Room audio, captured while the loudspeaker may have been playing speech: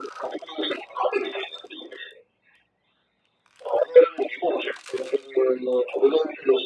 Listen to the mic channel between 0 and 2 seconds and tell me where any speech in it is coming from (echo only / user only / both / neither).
echo only